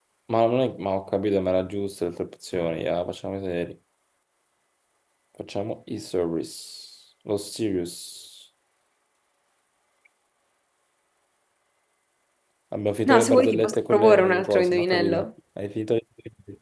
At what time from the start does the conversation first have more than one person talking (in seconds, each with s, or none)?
13.1 s